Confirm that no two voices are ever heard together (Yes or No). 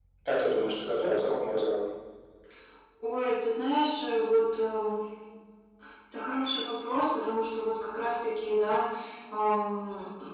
Yes